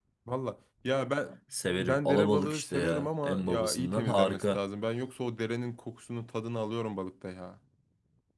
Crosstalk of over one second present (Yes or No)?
Yes